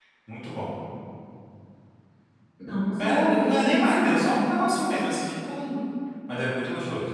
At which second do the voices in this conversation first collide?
3.0 s

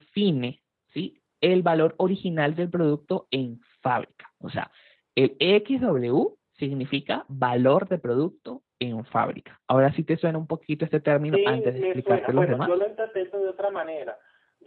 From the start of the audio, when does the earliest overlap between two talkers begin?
11.3 s

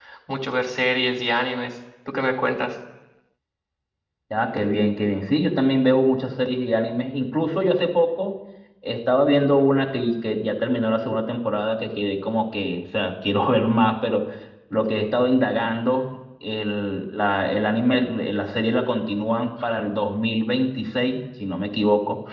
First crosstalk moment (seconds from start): none

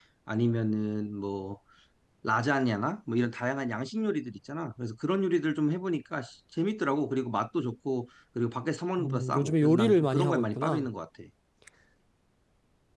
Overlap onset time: 9.0 s

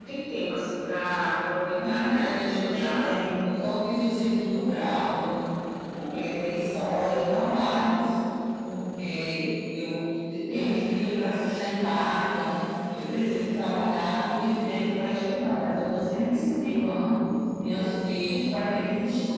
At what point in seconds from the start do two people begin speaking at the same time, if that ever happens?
1.8 s

